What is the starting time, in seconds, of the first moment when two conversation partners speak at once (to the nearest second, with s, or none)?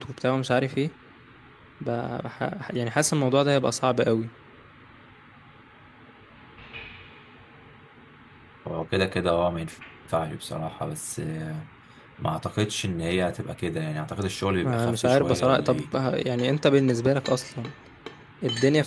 15 s